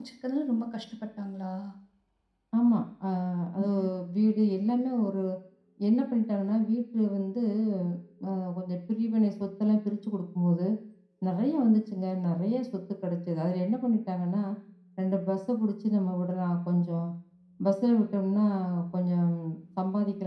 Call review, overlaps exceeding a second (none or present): none